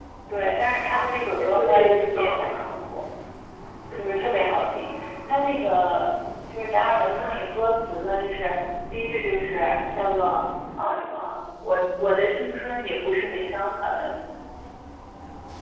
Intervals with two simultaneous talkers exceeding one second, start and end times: 0.9-2.6

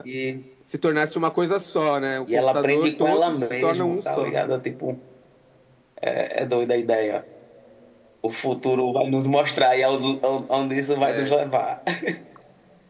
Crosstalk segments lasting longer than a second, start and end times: 2.3-4.3

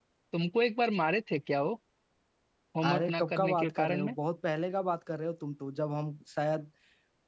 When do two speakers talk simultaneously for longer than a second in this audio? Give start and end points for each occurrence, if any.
2.8-4.2

